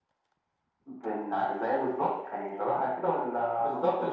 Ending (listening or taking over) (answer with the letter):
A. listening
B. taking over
B